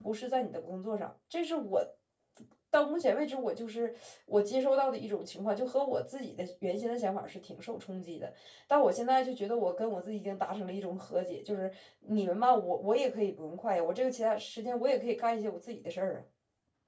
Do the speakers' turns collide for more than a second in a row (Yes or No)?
No